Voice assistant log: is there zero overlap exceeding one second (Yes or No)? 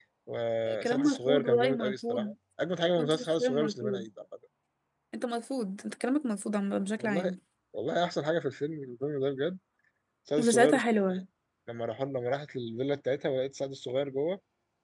No